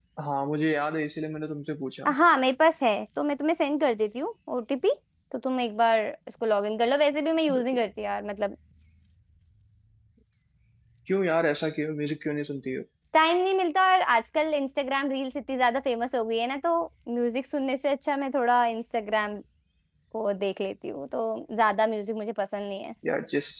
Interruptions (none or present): none